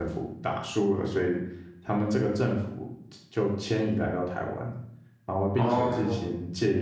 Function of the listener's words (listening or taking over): listening